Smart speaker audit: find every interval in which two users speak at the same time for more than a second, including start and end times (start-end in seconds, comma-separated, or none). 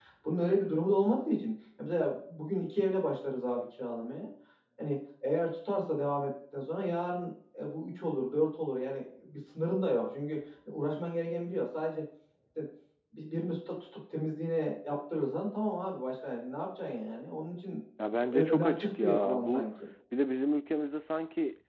18.2-19.7